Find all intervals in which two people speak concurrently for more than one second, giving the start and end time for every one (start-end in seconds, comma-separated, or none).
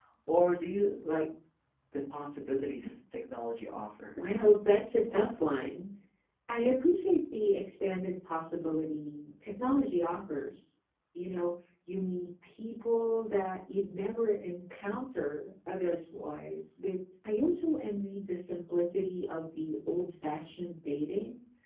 none